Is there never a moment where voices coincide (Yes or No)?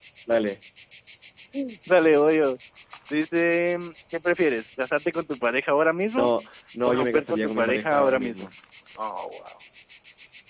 No